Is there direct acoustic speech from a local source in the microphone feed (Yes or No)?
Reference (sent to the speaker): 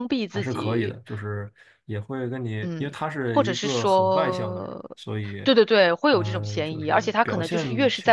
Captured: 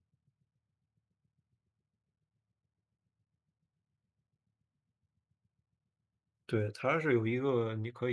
Yes